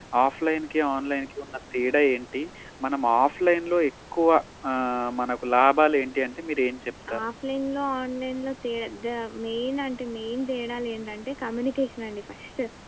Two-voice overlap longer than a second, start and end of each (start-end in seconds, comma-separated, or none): none